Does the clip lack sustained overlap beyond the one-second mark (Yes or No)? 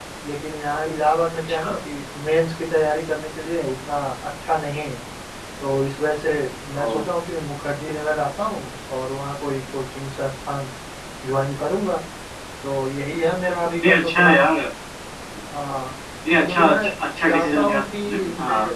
No